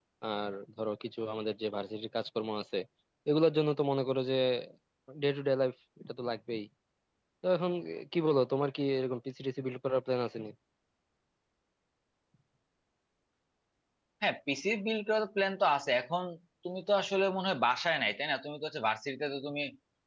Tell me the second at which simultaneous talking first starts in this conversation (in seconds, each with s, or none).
none